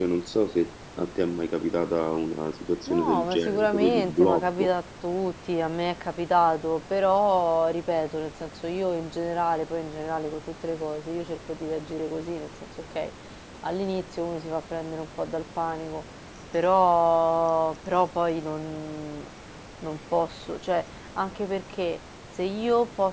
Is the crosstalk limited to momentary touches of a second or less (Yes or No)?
No